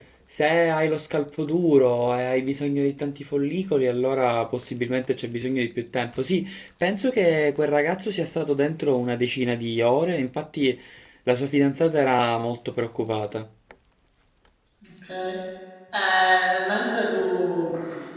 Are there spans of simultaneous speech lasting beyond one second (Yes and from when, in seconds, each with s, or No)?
No